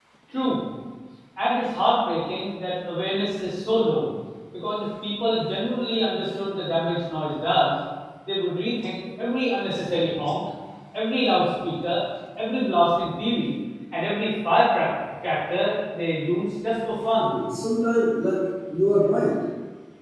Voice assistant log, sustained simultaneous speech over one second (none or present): none